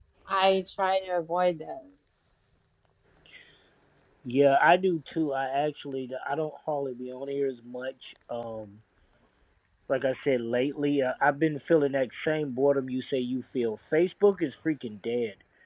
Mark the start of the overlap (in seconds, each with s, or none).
none